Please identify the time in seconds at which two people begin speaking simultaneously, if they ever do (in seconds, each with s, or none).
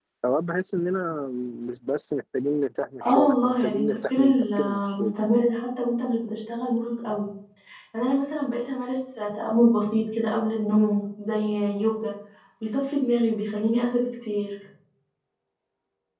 3.0 s